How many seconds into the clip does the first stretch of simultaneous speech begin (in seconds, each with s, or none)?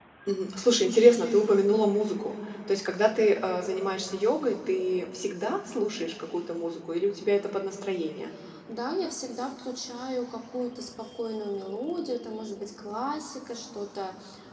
none